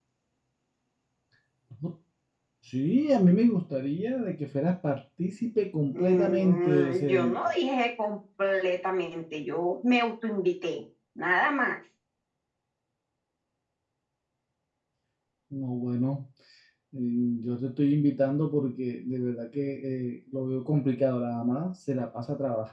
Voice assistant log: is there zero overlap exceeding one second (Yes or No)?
No